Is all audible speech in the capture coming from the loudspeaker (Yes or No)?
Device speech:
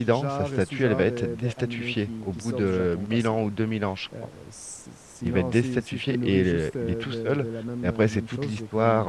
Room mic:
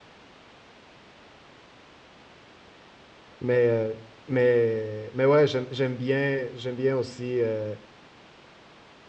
No